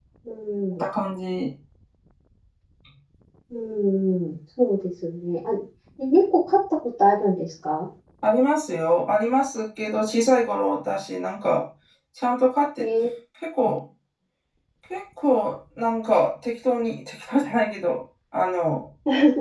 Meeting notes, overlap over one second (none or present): none